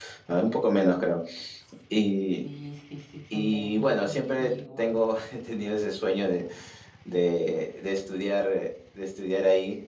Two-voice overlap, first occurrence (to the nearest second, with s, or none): 3 s